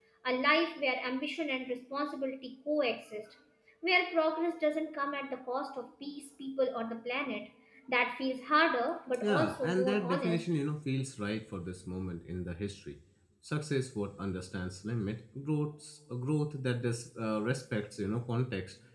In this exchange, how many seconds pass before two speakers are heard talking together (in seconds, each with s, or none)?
9.2 s